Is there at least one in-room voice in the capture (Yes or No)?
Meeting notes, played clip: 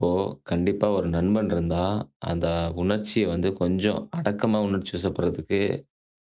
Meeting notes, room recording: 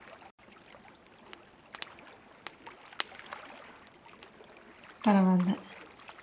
Yes